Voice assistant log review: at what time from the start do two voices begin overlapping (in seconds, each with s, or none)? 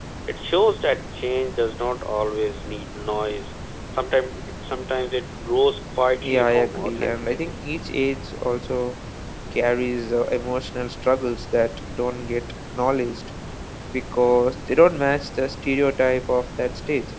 6.2 s